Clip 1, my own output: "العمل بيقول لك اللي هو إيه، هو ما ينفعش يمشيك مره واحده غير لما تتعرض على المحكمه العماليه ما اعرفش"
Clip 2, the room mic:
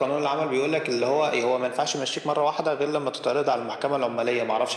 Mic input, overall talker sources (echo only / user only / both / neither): echo only